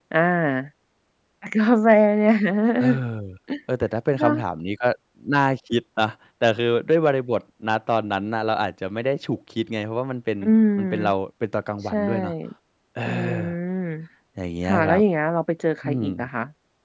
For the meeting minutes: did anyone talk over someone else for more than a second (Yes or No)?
No